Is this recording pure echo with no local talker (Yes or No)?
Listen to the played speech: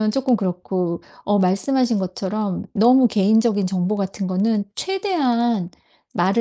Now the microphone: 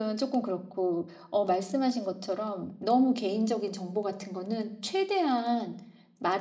Yes